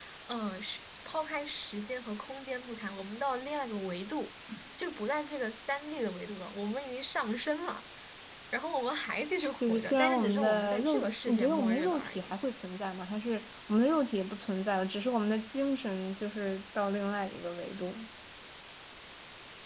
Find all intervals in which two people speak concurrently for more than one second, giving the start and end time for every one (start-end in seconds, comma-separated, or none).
9.6-12.4